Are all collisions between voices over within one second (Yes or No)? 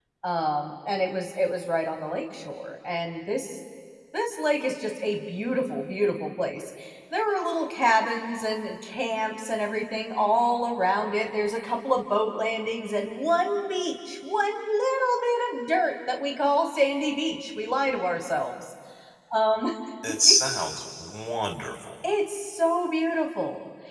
Yes